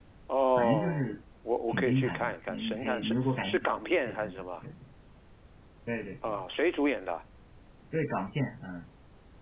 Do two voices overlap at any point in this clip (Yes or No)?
Yes